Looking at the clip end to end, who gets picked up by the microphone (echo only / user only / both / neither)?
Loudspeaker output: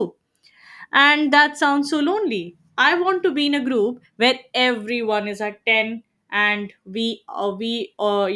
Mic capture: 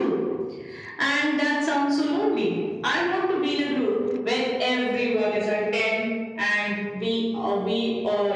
echo only